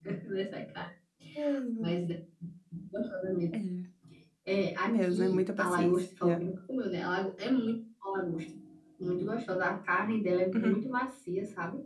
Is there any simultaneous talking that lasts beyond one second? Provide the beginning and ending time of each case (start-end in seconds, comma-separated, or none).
4.8-6.5